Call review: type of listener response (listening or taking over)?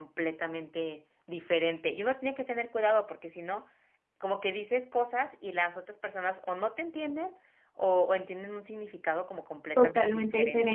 taking over